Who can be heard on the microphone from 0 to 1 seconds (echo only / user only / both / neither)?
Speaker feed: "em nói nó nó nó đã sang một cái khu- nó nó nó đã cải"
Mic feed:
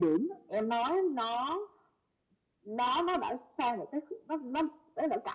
echo only